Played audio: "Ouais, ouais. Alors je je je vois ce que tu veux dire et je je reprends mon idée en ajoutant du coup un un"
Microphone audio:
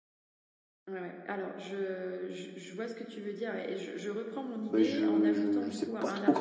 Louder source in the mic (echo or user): user